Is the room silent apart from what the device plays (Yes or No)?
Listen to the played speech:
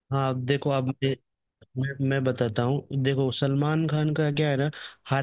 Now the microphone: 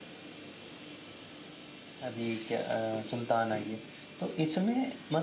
No